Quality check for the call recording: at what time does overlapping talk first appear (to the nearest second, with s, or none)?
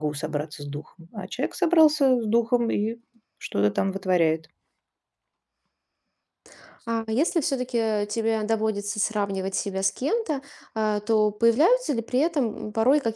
none